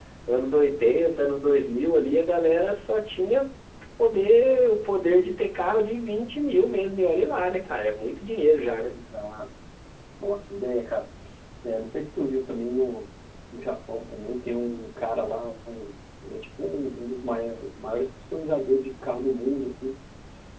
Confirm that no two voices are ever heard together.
Yes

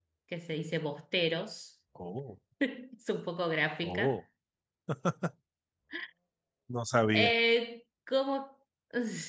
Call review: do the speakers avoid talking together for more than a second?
Yes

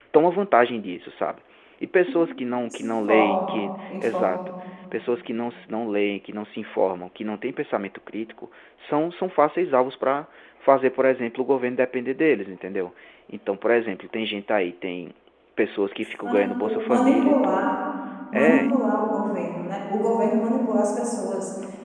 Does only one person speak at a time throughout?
No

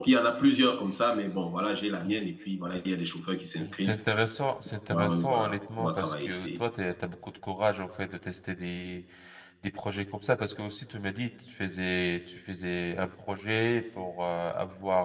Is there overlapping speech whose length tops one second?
Yes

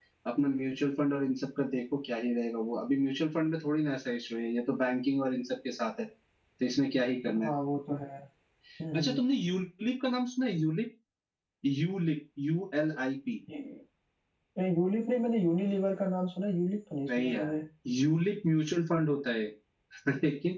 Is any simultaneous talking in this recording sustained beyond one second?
No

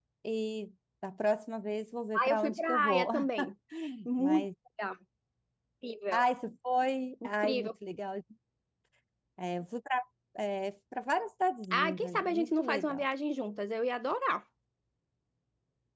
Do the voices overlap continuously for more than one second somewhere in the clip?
Yes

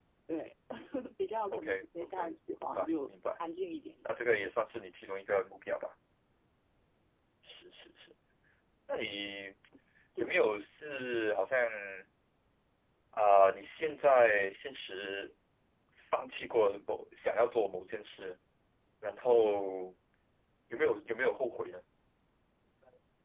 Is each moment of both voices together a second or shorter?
No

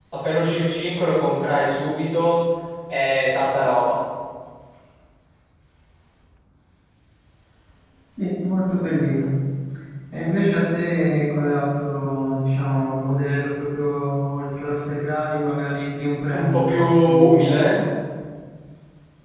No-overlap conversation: No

